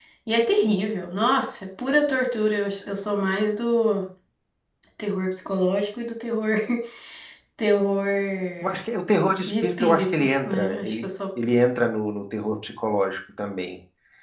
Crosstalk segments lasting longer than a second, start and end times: 9.5-11.0

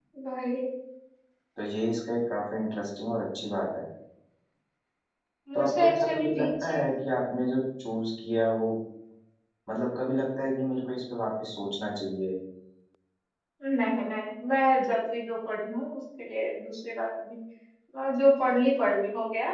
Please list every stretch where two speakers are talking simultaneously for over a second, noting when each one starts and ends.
5.5-6.9

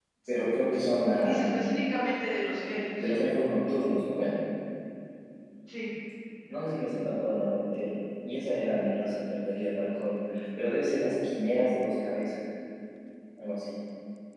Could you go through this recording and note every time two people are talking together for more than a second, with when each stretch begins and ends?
none

